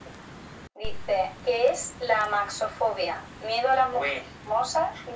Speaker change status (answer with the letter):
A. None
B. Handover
A